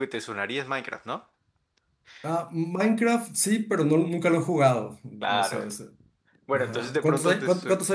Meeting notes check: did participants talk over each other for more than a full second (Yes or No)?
Yes